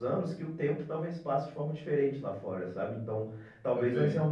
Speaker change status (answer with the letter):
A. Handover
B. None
B